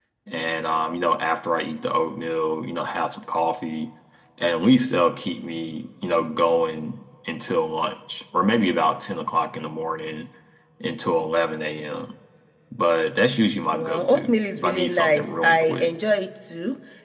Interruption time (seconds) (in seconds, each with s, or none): 13.7 s